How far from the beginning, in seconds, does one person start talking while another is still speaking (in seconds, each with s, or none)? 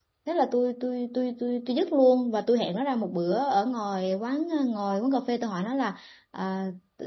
none